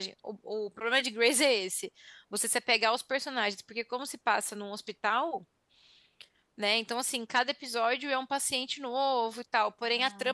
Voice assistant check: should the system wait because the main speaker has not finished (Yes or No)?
Yes